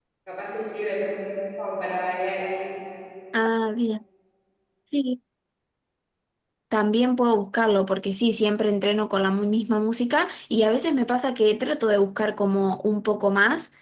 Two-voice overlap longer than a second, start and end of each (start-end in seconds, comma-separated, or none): none